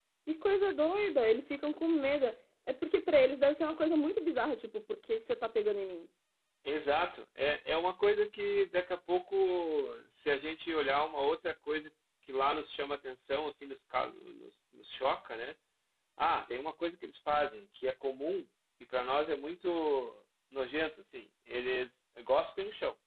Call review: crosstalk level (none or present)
none